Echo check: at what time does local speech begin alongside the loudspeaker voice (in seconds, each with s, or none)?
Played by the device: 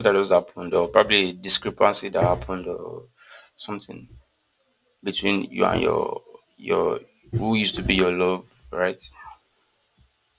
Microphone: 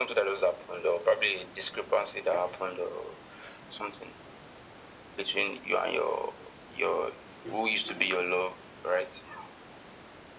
none